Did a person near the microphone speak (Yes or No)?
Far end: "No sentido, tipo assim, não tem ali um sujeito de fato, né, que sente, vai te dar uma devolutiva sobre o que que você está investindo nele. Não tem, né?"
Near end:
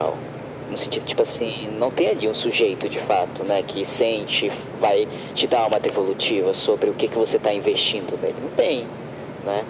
No